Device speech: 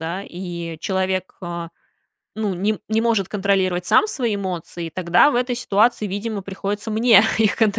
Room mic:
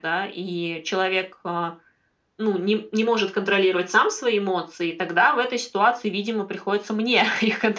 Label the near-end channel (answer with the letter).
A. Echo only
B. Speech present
A